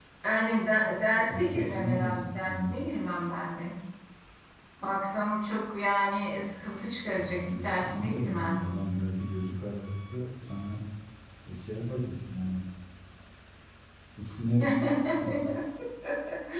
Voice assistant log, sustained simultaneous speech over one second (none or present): present